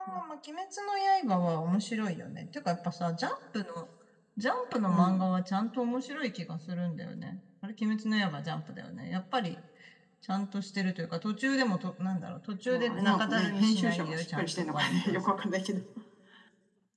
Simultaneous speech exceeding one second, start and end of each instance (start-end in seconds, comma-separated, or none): 12.7-15.4